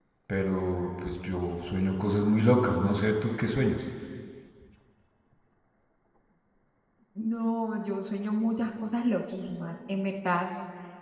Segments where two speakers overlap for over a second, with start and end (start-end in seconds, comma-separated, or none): none